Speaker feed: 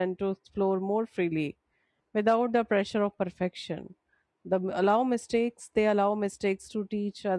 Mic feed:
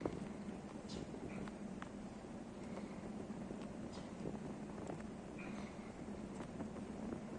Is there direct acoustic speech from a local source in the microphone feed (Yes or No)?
No